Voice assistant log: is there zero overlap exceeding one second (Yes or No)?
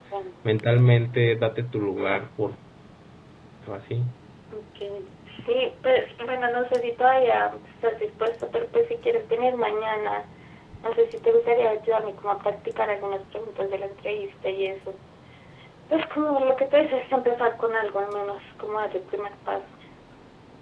Yes